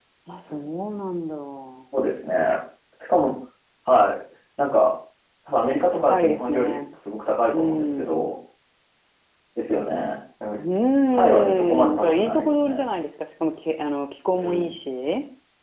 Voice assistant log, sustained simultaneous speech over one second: present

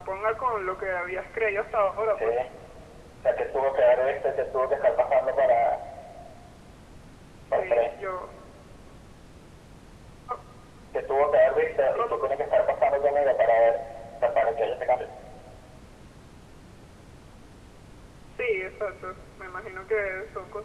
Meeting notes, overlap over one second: none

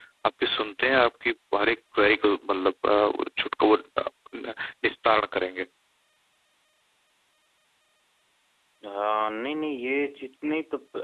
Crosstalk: none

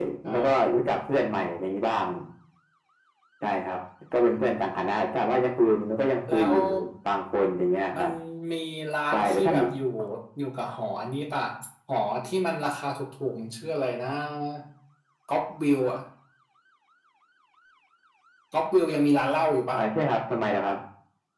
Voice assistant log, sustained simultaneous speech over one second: none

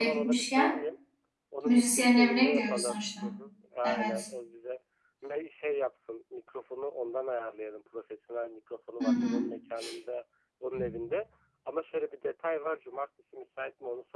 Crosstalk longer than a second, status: present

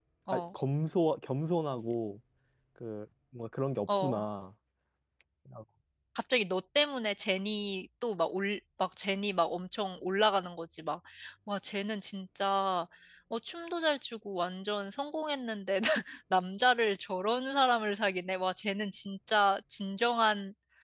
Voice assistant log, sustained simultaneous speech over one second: none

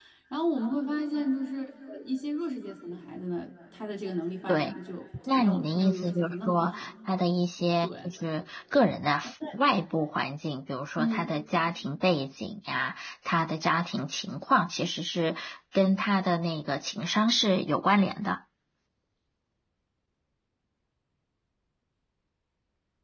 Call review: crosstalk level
present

